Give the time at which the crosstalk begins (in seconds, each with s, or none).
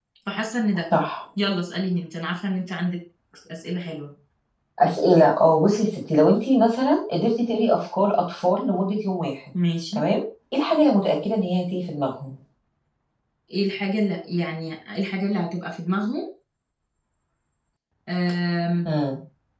none